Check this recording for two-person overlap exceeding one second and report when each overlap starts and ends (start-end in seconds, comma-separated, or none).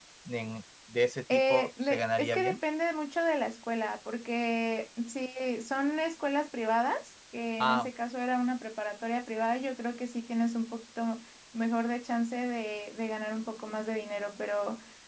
1.3-2.6